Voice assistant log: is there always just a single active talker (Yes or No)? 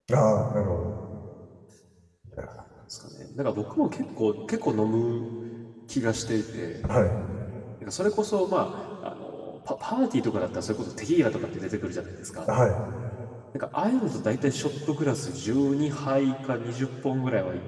Yes